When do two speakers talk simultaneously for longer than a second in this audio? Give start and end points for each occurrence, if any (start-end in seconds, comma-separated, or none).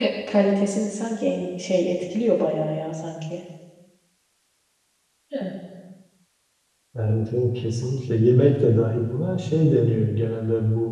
none